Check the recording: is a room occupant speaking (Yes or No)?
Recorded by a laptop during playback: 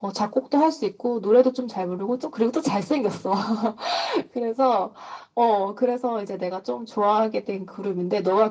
No